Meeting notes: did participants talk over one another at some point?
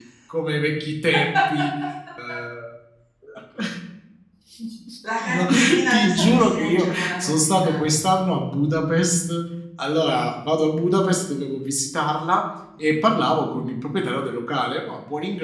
Yes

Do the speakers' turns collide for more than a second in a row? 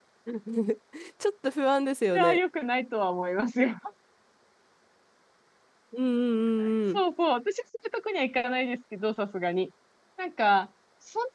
No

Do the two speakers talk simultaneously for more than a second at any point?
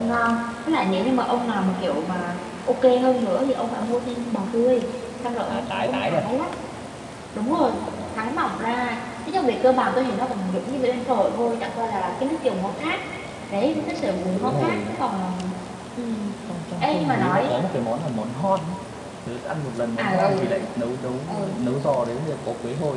Yes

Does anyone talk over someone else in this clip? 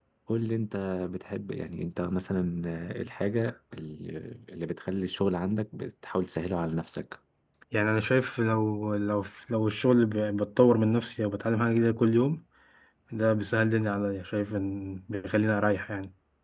No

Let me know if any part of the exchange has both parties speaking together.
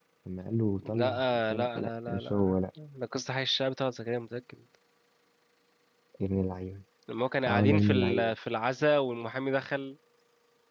Yes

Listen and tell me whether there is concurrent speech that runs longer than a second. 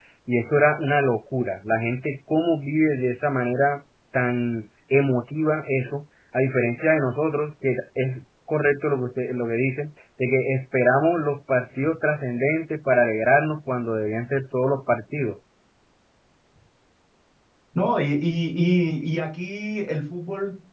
No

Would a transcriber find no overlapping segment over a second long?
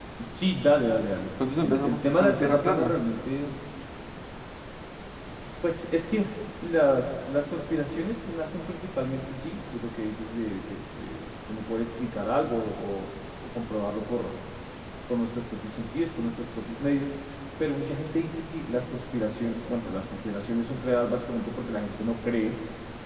No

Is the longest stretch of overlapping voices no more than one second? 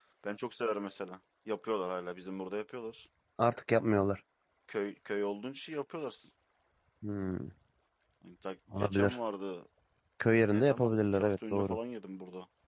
No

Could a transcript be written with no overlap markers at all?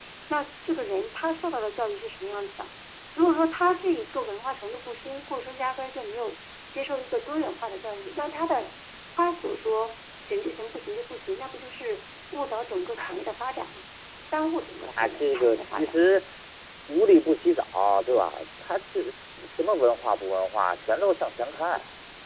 No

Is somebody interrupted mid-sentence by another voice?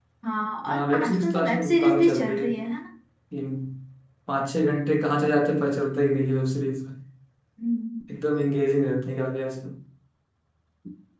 Yes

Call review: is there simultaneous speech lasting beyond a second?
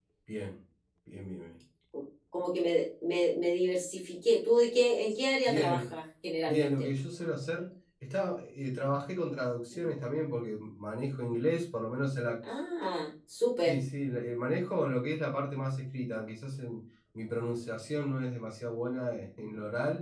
No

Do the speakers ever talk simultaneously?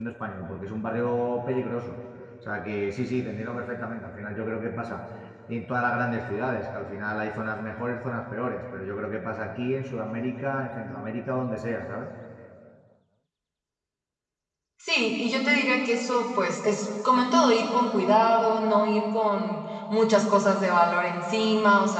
No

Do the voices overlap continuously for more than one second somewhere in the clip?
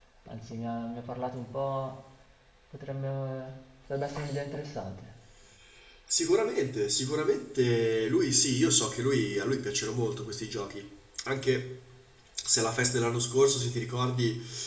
No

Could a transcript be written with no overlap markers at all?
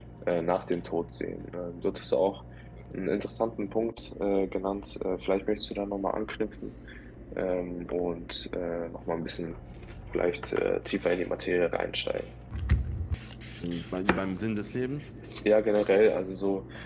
Yes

